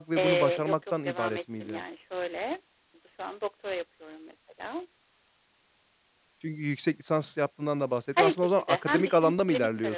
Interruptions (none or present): present